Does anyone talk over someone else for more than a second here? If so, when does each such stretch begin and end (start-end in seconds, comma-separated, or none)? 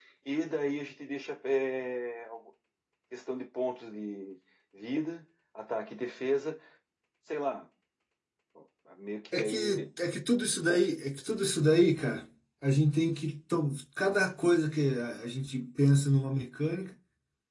none